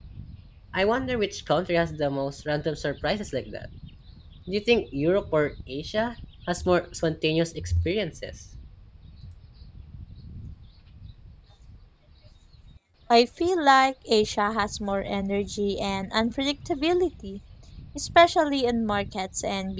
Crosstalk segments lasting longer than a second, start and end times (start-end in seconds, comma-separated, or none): none